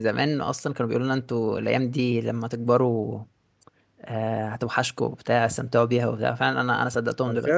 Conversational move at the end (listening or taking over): taking over